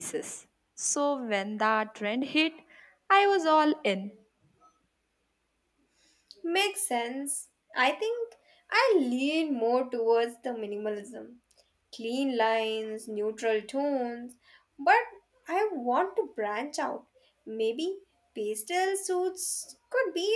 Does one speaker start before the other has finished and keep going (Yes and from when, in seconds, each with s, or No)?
No